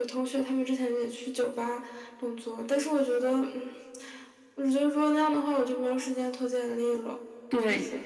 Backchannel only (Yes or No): No